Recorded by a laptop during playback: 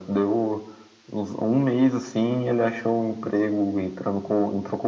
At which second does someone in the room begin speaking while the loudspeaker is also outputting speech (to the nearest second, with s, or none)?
none